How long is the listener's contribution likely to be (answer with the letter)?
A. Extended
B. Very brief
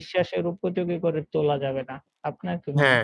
A